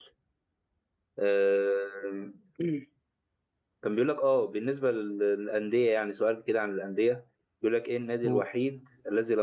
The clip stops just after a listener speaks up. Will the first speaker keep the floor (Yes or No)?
Yes